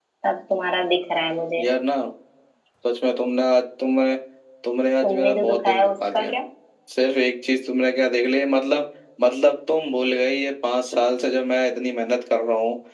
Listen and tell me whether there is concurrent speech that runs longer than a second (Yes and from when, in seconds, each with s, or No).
Yes, from 5.0 s